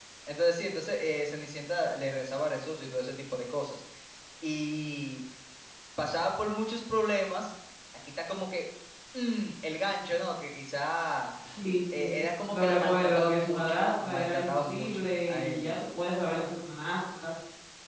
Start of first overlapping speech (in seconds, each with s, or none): 12.0 s